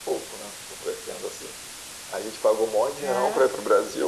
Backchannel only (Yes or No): Yes